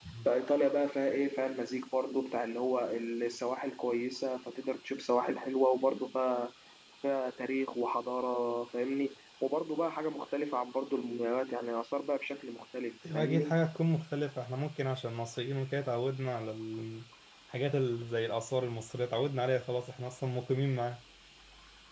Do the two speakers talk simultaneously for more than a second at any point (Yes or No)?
No